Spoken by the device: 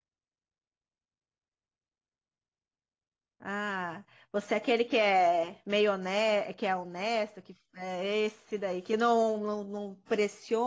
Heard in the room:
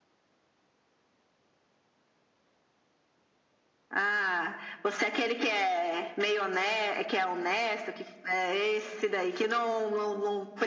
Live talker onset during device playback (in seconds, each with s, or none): none